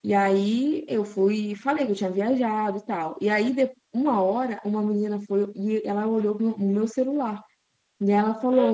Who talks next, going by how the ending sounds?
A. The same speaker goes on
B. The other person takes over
A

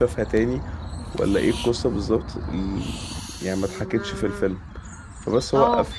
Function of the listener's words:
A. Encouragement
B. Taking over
A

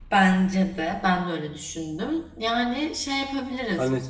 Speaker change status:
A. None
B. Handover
B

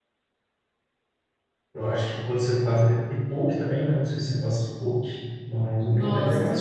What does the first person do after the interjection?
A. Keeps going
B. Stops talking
B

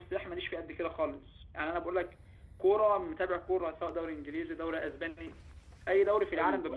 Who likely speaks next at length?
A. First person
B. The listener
B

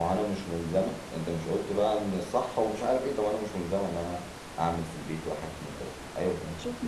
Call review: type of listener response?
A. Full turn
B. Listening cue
A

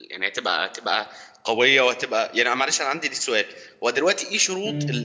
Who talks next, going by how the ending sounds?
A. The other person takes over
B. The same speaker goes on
B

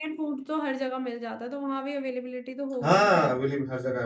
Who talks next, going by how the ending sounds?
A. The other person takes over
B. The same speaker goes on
A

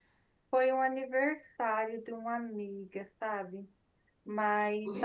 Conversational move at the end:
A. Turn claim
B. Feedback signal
A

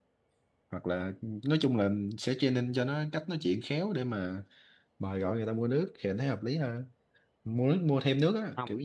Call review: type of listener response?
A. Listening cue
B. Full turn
A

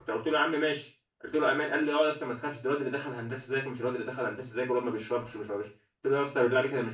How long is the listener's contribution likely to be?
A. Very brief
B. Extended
A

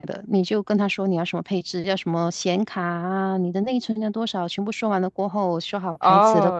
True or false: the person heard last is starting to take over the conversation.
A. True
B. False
A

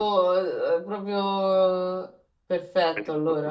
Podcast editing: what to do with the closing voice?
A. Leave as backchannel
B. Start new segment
B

